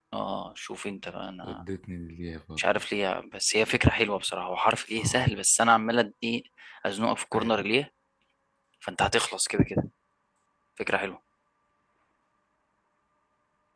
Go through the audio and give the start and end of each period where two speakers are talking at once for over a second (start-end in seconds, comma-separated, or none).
none